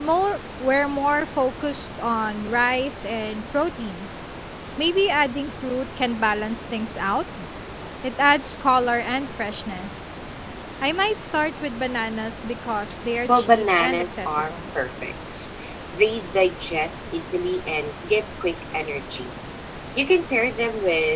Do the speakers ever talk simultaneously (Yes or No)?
Yes